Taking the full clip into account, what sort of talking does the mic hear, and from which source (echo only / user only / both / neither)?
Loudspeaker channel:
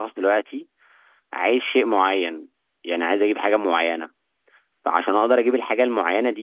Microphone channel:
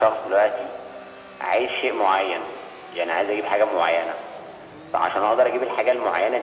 echo only